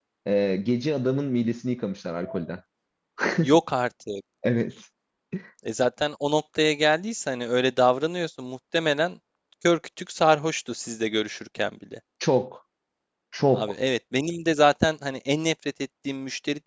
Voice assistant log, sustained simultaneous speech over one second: none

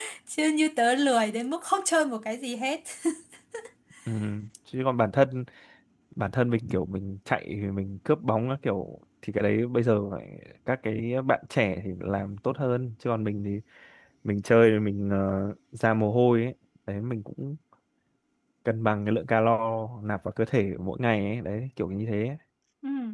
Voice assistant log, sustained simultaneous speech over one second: none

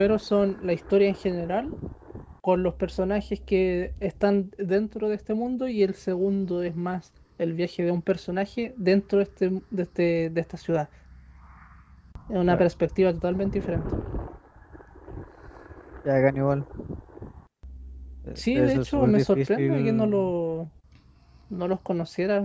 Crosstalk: present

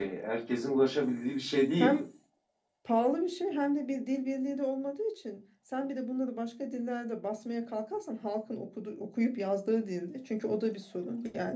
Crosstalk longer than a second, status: none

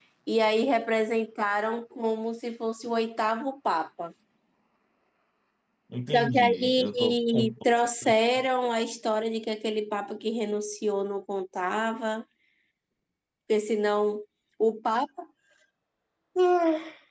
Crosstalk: present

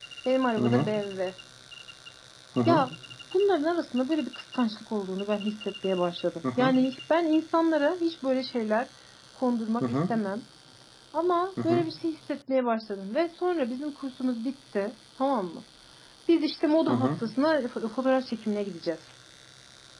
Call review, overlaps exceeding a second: none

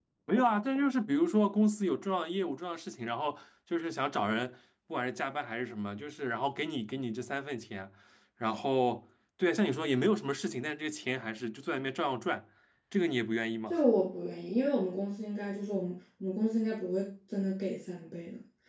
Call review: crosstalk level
none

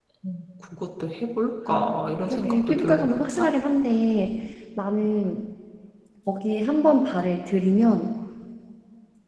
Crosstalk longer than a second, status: present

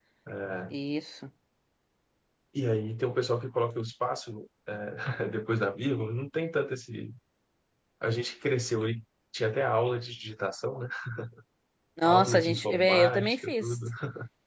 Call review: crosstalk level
present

